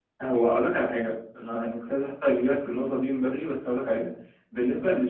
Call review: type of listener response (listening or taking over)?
listening